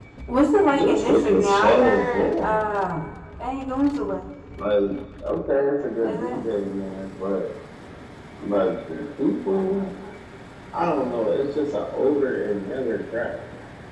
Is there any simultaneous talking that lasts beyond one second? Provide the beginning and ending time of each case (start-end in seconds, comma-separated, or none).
0.7-2.6